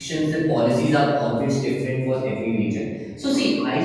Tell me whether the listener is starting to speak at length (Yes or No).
No